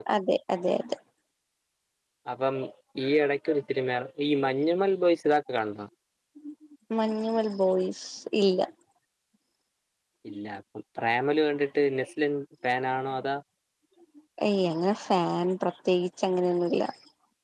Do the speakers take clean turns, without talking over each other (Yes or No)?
Yes